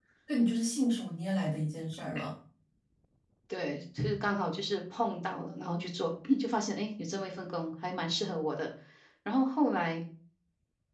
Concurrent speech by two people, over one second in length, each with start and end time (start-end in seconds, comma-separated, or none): none